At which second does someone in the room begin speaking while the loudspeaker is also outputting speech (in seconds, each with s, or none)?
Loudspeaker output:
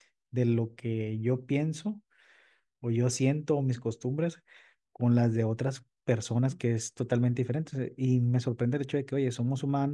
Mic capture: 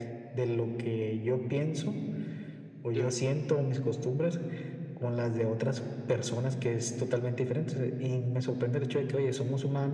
2.9 s